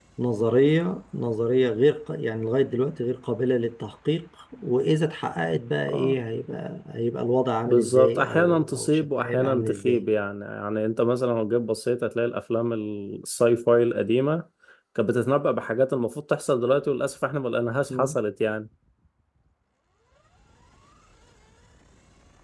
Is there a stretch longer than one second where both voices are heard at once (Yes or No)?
Yes